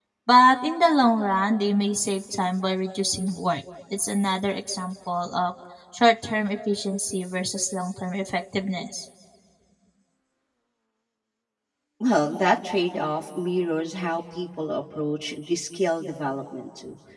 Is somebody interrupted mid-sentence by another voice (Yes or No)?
No